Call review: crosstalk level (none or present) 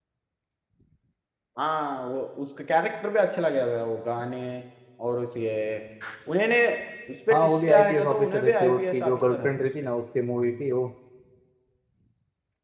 present